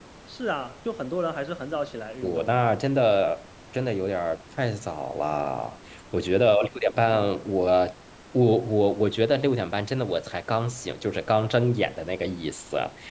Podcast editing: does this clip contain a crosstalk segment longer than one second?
No

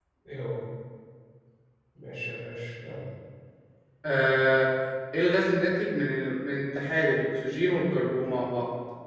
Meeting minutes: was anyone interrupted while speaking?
No

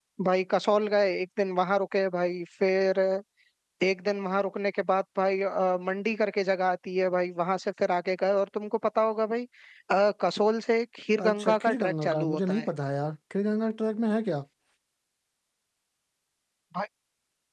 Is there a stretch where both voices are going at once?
Yes, from 11.2 s

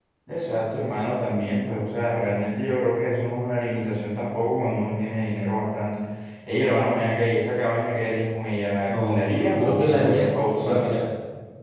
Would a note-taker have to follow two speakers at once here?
Yes, from 8.9 s

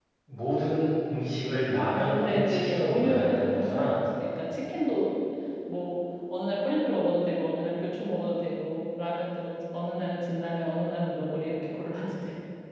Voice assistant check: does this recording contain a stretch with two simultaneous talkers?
Yes, from 1.9 s

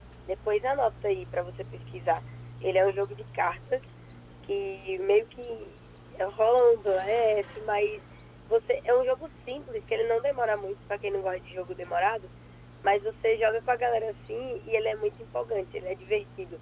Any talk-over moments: No

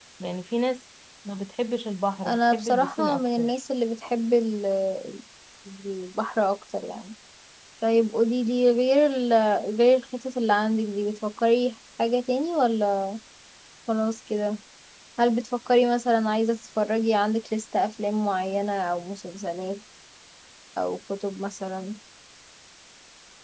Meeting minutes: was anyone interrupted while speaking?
Yes, from 2.2 s

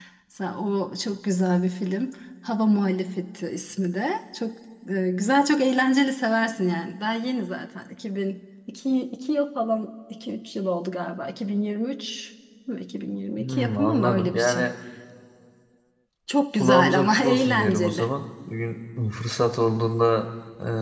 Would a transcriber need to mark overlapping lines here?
Yes, from 13.4 s

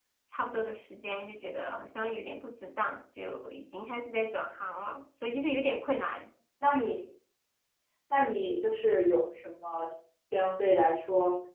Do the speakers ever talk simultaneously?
No

